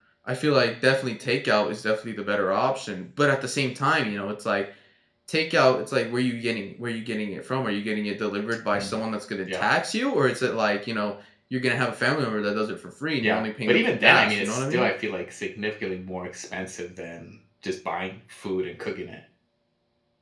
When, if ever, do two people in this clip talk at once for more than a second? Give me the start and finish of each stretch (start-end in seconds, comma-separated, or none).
13.2-14.9